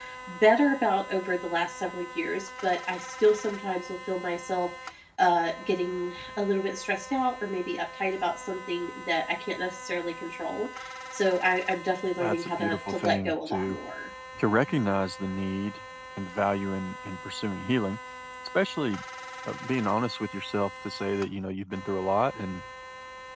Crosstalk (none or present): present